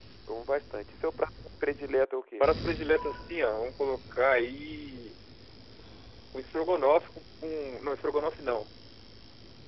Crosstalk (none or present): none